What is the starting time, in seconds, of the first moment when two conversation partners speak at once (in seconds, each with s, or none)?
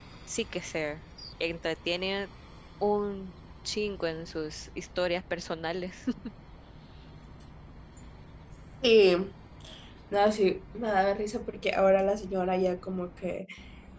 none